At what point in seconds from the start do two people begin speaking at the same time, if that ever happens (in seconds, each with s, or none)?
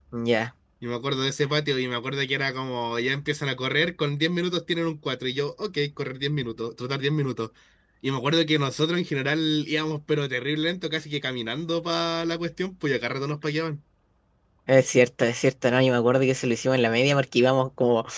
none